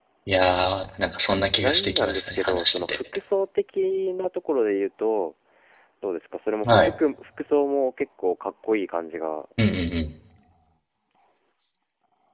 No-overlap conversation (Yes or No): No